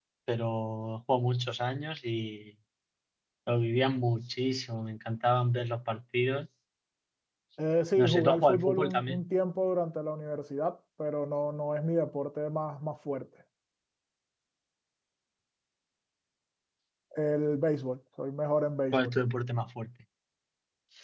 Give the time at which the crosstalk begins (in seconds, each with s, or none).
7.9 s